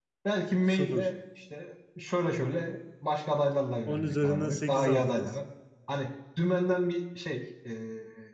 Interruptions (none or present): present